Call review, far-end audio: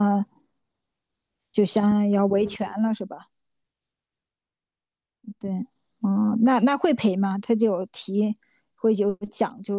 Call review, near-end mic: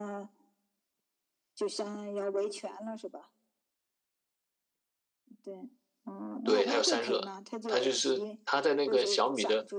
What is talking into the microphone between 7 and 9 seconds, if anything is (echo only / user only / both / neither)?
both